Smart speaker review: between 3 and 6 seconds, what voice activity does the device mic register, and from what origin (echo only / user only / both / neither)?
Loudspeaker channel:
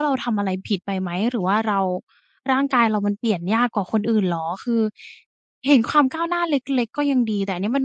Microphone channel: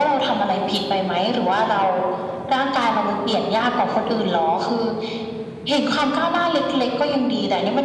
echo only